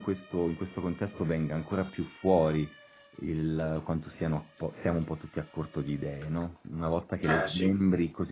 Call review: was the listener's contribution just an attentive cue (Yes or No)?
Yes